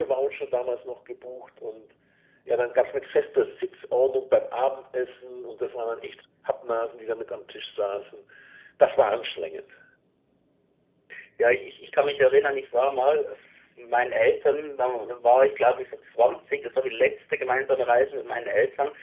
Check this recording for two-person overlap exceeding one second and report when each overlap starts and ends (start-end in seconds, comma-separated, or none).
none